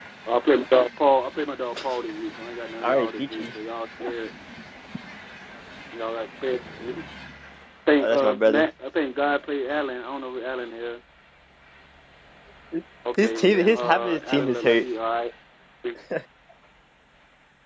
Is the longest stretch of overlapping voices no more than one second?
No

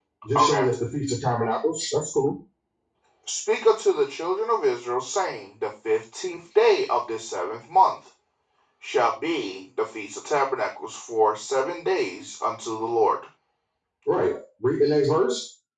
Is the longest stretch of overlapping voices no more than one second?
Yes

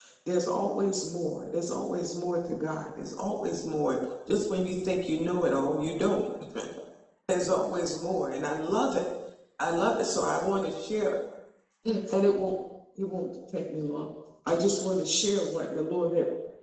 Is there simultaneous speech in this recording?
No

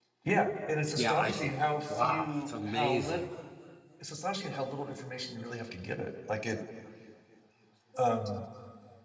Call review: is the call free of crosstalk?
No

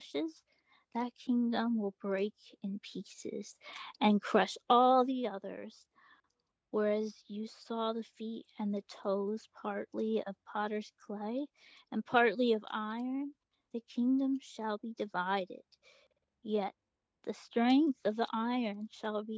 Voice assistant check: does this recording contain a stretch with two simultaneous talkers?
No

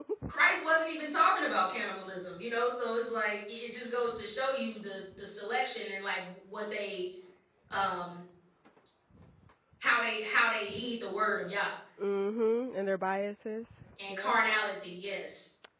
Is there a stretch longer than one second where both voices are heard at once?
No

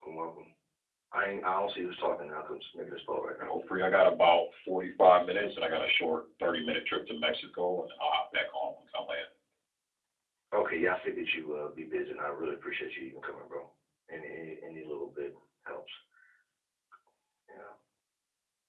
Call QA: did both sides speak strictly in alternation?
Yes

